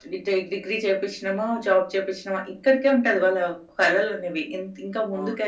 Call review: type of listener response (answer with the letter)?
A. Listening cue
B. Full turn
A